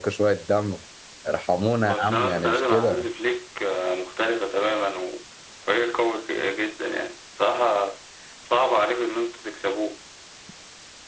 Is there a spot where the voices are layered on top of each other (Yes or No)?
Yes